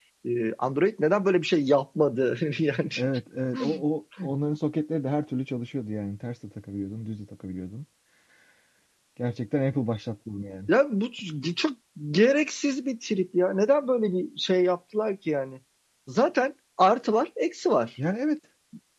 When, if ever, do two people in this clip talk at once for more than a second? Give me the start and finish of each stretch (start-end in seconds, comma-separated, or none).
none